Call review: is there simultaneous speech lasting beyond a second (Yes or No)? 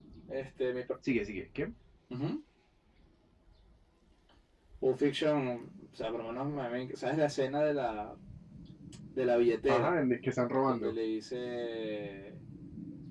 No